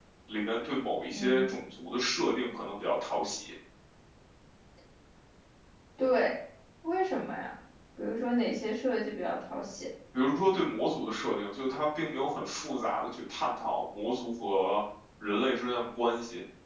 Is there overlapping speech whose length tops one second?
No

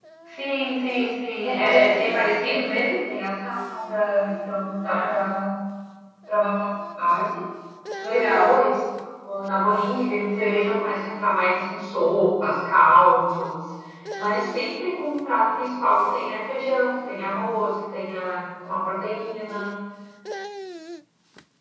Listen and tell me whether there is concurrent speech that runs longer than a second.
Yes, from 1.4 s

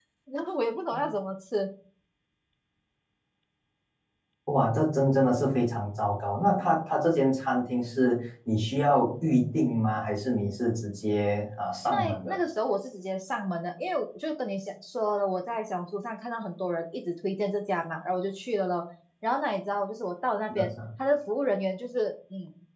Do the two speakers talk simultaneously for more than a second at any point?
No

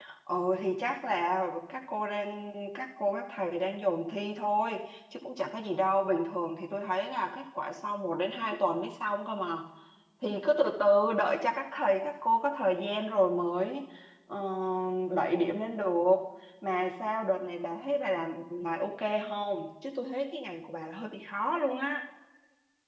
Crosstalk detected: No

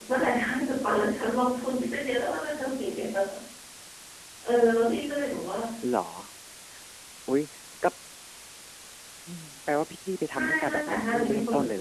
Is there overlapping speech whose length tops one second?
Yes, from 10.3 s

